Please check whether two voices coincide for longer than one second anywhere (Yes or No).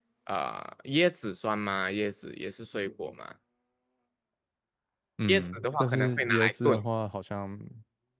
Yes